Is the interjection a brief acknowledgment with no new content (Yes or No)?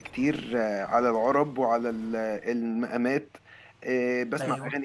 Yes